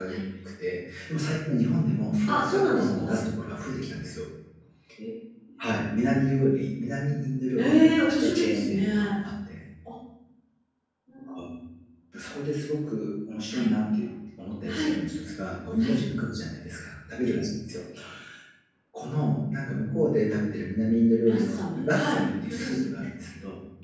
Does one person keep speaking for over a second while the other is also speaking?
Yes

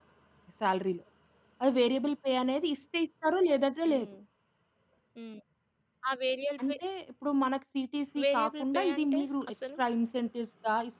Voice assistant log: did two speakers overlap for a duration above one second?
Yes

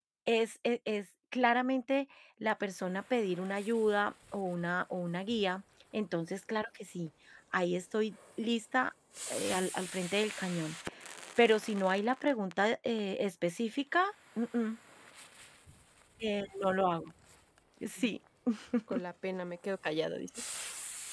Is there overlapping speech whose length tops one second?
No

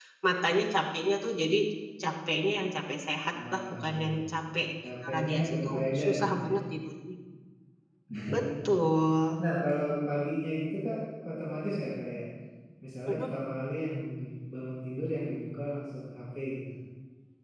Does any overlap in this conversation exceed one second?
Yes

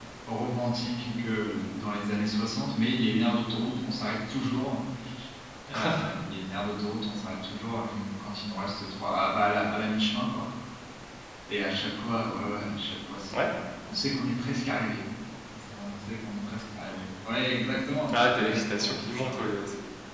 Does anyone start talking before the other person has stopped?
Yes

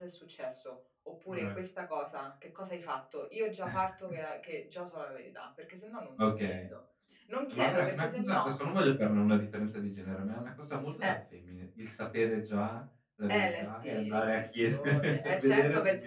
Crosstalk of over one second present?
Yes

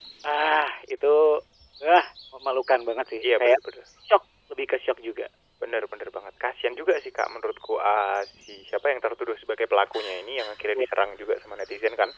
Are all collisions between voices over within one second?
Yes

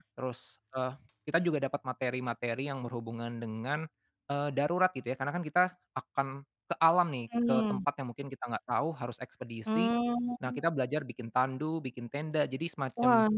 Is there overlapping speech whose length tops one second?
No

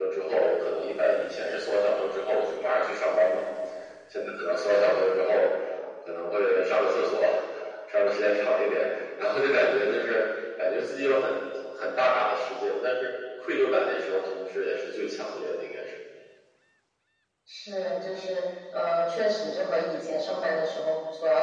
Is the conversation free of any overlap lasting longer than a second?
Yes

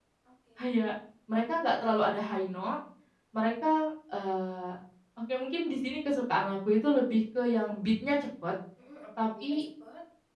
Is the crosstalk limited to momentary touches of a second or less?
Yes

